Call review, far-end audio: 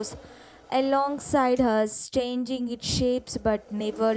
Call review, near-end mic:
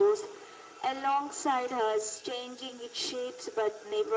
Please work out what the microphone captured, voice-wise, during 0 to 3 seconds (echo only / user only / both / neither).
echo only